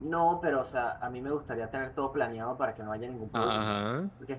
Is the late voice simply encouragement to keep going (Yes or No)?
Yes